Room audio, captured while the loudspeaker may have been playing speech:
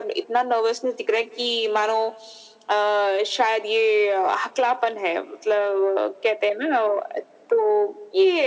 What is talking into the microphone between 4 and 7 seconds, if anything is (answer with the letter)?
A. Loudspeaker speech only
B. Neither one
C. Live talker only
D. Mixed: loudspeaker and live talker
A